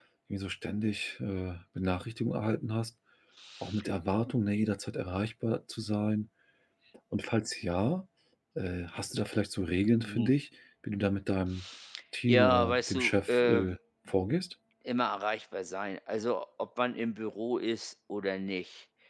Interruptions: present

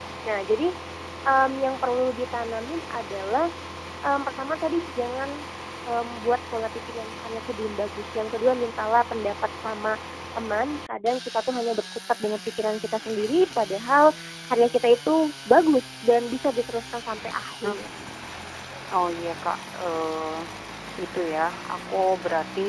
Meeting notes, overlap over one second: none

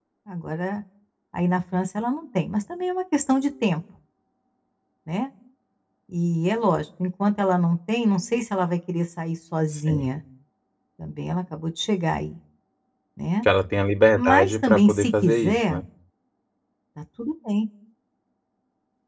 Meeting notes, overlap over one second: present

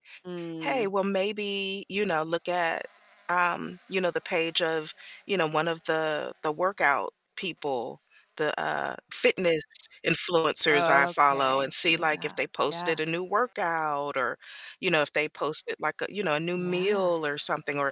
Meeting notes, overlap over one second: present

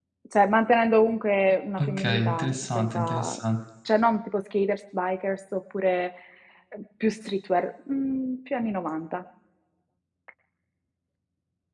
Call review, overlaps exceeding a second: present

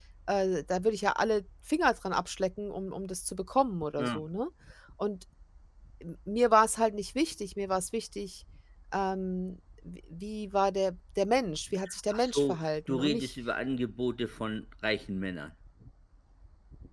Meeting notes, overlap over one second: present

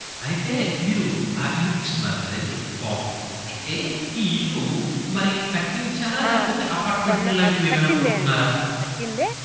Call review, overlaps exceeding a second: present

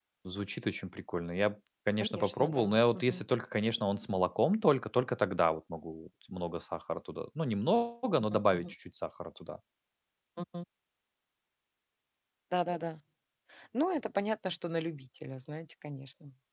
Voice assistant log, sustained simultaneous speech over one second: present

